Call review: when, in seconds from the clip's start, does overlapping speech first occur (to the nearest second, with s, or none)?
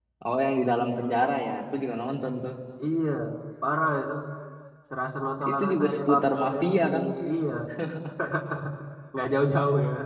6 s